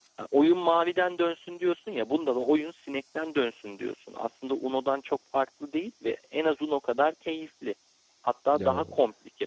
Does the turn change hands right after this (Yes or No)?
No